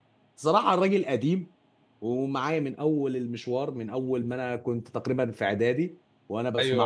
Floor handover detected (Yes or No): Yes